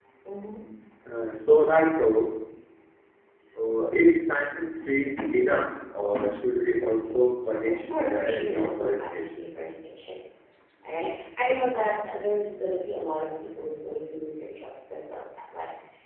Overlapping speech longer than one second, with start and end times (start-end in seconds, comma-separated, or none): 7.6-9.2